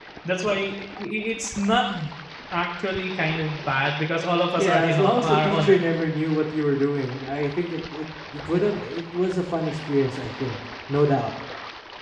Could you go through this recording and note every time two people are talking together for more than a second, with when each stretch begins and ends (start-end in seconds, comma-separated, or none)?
4.6-5.8